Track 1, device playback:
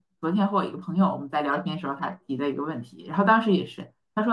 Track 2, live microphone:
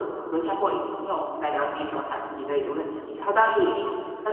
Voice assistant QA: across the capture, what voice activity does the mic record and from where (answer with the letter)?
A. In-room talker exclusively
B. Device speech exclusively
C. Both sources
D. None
B